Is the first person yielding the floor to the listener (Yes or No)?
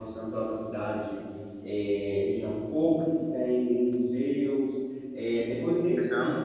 No